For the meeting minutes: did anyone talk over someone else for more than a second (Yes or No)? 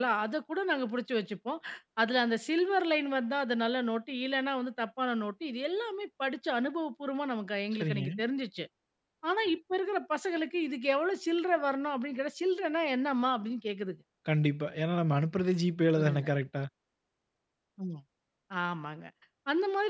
No